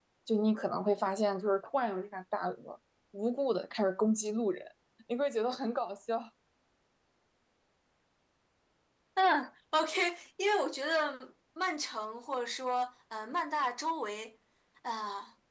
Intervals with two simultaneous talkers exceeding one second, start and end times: none

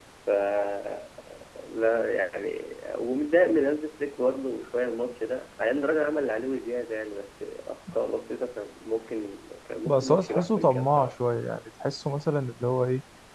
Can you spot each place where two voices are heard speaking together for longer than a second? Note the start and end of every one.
9.8-11.1

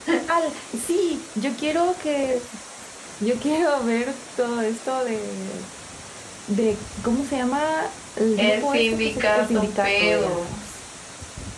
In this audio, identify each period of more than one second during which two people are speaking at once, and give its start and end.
8.4-10.5

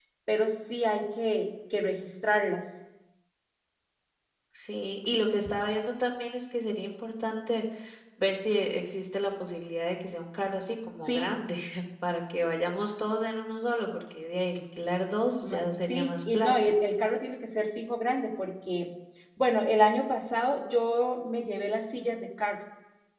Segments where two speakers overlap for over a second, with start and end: 15.4-16.7

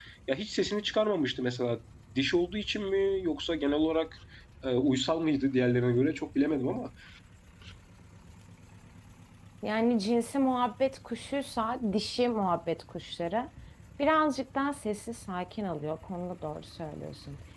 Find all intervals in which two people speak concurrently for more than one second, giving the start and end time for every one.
none

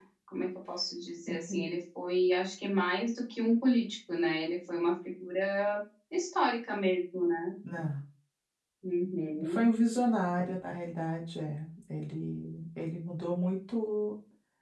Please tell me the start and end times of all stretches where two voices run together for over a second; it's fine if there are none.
none

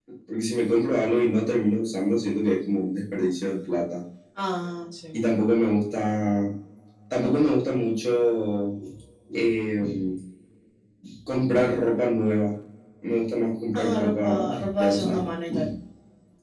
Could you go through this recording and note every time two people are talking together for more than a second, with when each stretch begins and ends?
13.8-15.3

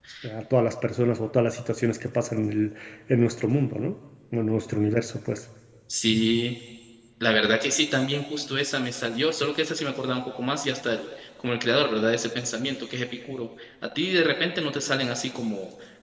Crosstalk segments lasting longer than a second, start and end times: none

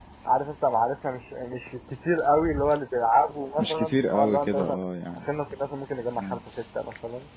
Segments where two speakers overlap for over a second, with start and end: 3.6-4.8

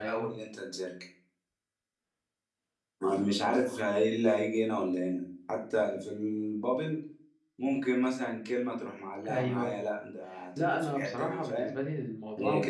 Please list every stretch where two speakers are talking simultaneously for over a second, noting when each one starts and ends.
10.6-11.8

